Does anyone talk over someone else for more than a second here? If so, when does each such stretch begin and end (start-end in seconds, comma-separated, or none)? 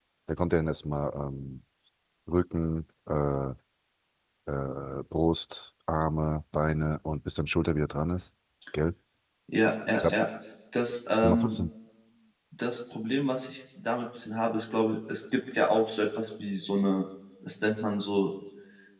none